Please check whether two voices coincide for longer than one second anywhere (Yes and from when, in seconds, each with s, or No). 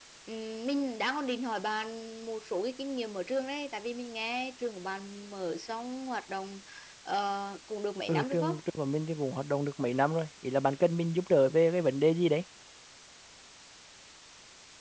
No